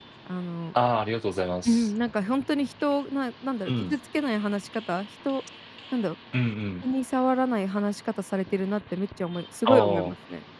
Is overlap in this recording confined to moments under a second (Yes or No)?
Yes